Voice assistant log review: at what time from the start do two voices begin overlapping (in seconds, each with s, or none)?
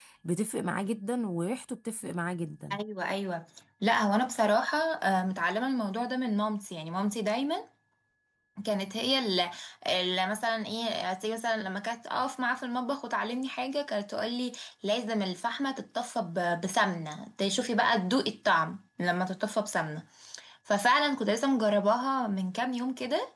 none